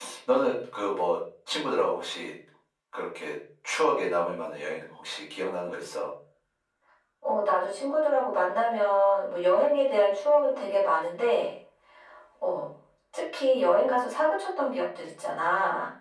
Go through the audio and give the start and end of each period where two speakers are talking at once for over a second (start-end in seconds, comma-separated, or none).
none